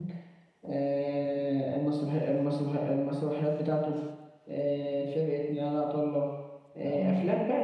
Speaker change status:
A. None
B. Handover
A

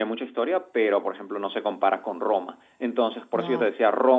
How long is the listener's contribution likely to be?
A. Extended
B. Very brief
B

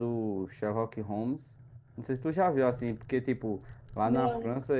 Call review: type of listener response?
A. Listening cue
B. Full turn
A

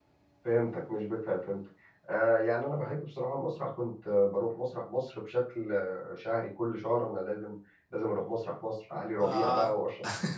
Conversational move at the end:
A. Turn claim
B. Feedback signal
B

